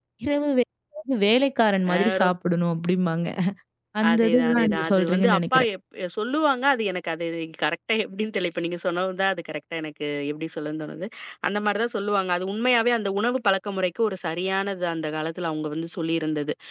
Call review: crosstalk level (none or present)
present